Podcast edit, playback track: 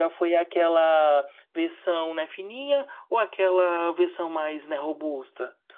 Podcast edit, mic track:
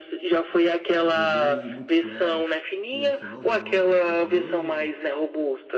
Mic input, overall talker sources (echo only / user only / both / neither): both